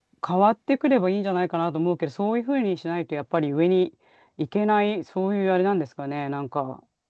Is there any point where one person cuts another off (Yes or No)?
No